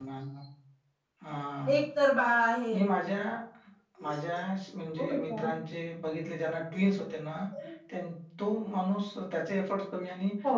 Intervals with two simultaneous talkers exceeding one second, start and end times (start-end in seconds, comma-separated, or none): none